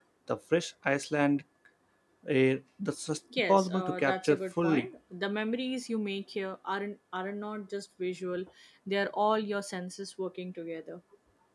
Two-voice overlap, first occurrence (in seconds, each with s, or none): 3.3 s